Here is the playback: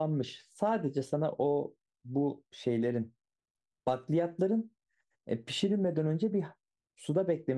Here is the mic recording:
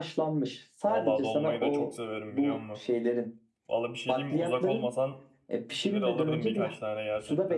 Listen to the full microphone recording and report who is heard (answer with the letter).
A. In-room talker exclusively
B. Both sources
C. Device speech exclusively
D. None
B